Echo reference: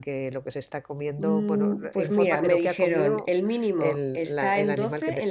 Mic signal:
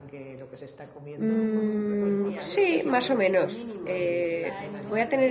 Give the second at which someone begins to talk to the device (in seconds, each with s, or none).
1.1 s